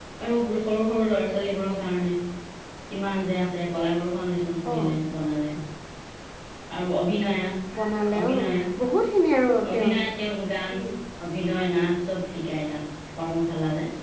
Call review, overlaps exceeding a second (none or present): none